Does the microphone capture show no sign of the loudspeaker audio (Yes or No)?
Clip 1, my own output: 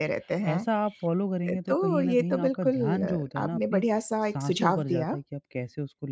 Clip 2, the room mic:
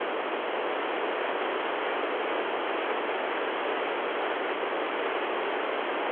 Yes